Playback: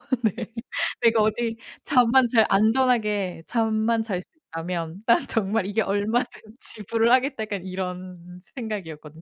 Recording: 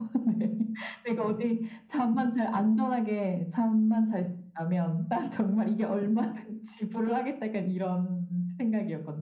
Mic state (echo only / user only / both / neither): echo only